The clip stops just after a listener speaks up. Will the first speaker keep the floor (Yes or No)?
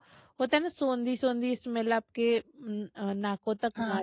No